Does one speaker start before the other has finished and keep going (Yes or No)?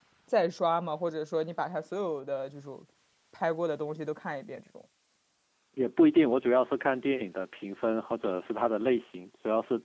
No